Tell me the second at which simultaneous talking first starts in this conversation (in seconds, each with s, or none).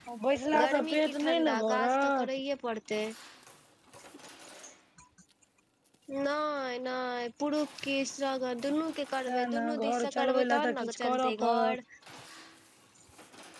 0.6 s